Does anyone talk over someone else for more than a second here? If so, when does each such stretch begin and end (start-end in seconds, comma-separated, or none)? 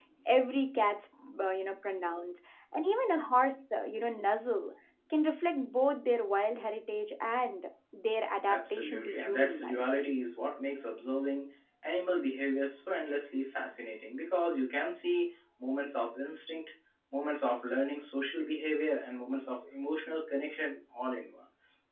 8.5-9.8